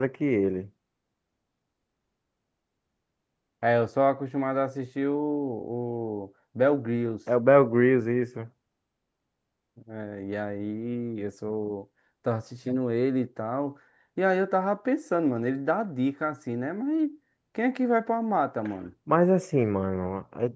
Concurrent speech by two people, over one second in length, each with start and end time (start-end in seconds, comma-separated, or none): none